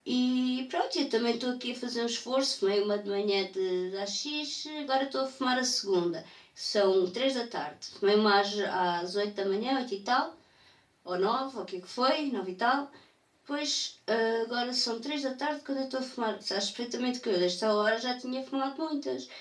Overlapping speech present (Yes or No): No